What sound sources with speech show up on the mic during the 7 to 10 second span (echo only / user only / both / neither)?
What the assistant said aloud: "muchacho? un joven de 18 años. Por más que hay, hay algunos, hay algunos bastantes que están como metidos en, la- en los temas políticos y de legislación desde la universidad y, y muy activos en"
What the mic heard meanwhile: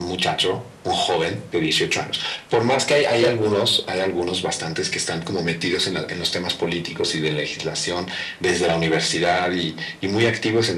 echo only